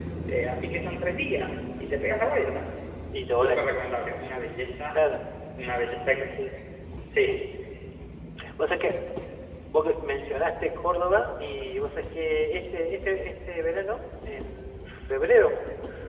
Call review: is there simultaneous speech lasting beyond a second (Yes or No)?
No